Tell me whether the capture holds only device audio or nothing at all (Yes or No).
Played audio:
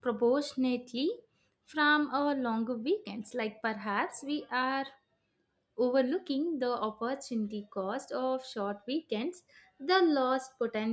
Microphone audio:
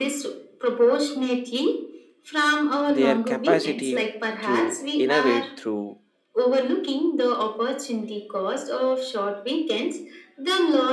No